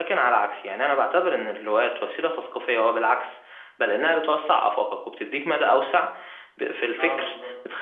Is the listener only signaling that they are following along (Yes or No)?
Yes